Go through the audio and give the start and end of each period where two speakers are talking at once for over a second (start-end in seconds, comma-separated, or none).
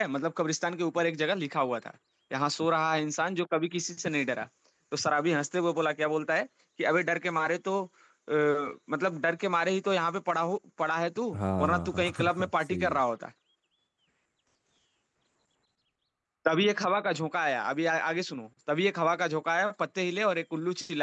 11.3-13.0